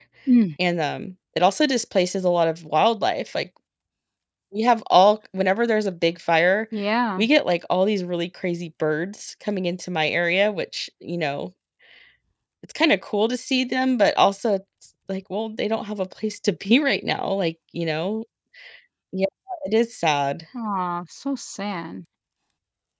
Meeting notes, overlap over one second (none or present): none